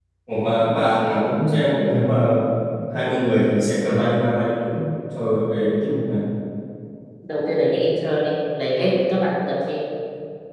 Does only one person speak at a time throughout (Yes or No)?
Yes